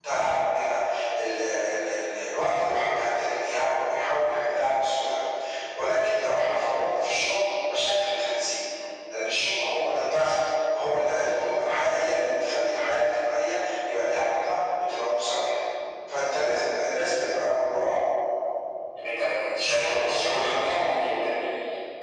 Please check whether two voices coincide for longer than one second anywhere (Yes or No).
Yes